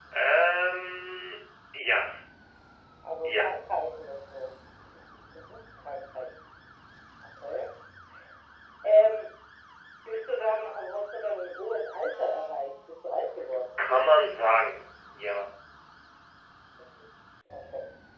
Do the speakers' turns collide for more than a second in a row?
No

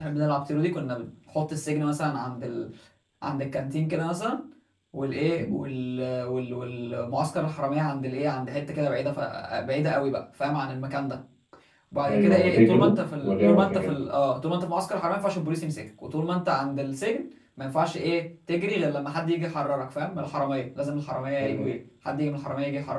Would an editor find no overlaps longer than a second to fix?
No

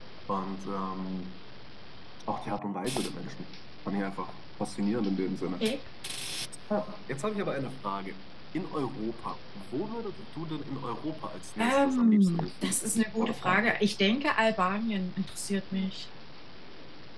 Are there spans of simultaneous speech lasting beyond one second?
Yes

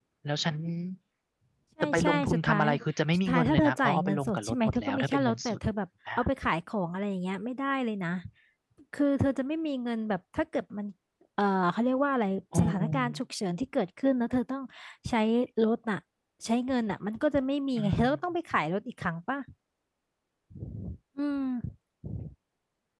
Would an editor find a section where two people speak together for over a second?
Yes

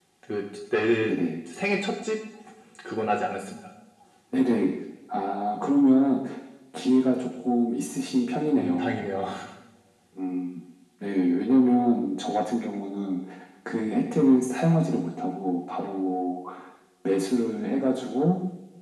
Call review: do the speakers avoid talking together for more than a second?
Yes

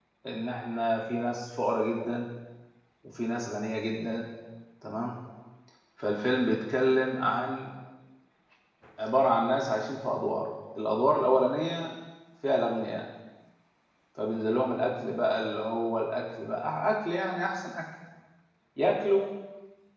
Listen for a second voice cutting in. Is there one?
No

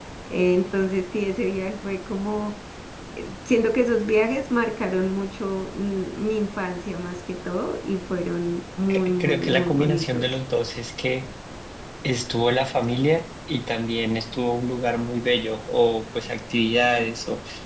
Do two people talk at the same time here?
Yes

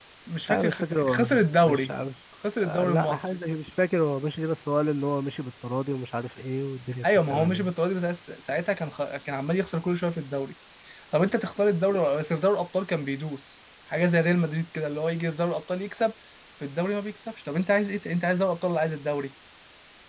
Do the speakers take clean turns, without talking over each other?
No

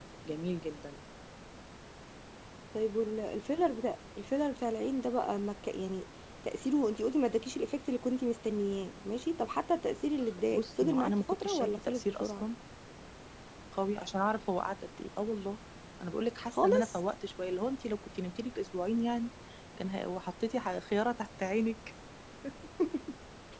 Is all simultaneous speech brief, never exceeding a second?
No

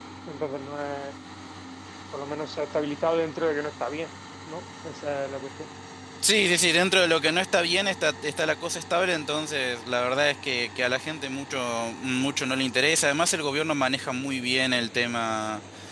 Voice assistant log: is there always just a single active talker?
Yes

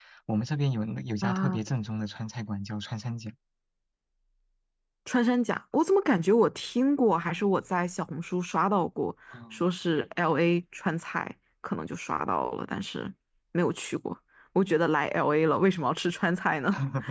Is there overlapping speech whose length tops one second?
No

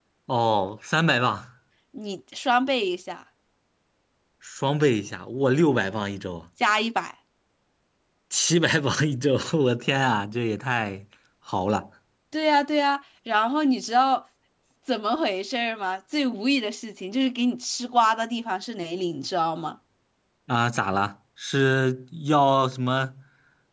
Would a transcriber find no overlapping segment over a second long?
Yes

